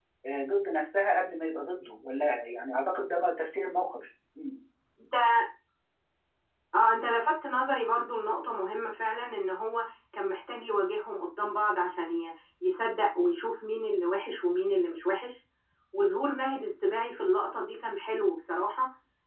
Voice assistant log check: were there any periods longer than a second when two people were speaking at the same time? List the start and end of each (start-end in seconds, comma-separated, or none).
none